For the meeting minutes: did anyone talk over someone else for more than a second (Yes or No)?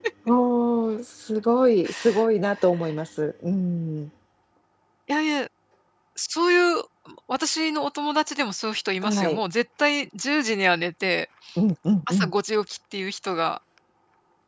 No